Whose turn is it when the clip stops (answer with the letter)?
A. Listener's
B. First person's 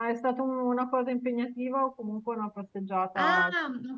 A